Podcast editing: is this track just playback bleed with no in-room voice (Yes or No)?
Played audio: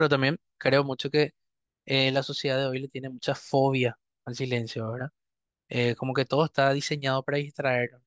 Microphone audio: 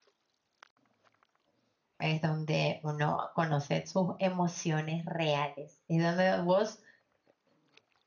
No